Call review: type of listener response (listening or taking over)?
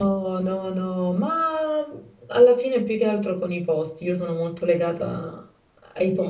taking over